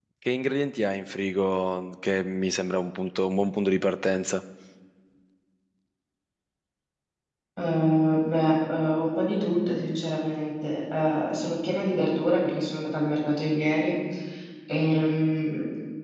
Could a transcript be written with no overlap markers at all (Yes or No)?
Yes